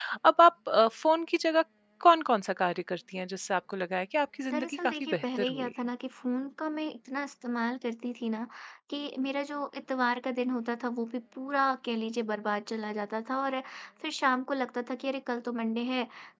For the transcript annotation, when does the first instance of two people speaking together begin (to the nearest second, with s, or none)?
5 s